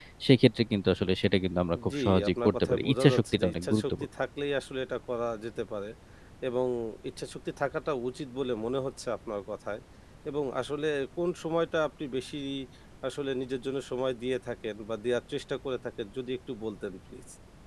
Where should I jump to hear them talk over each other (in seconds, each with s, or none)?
1.8 s